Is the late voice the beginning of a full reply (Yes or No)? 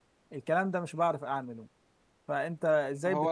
Yes